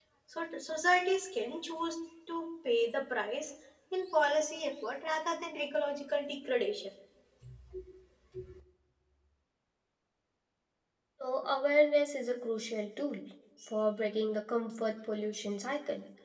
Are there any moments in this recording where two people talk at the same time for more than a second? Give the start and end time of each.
none

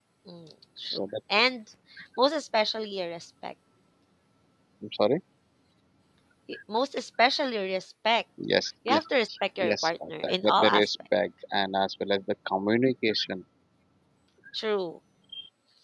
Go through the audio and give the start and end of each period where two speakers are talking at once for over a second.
9.6-10.9

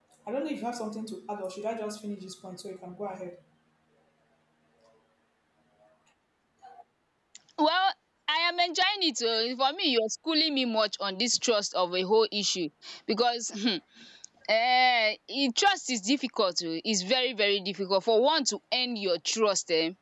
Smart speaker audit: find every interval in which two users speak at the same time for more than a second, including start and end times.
none

